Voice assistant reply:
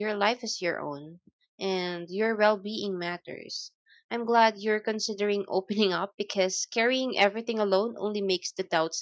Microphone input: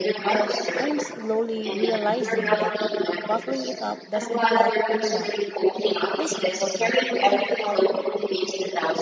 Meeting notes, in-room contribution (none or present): present